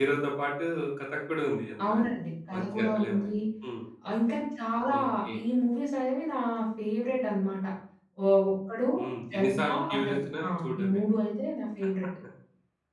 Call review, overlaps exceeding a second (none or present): present